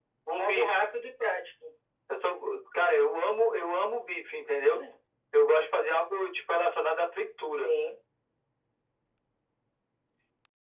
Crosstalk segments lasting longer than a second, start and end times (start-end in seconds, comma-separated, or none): none